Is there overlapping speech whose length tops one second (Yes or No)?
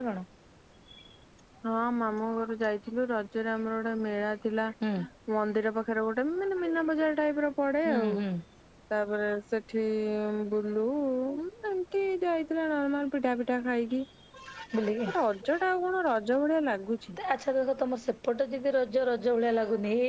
No